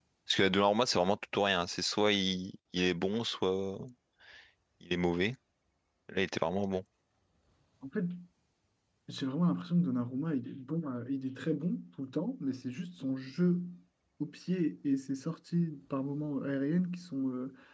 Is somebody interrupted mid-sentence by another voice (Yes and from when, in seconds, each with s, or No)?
No